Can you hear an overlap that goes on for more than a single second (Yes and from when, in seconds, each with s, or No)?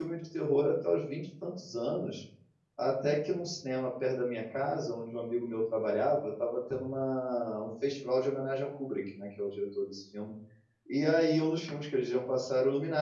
No